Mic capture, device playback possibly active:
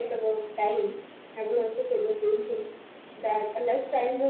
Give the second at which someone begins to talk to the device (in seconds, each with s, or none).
none